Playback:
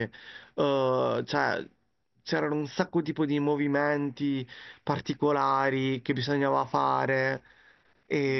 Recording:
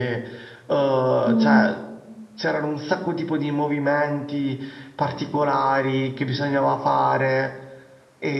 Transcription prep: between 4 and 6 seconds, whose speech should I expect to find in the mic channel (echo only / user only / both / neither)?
echo only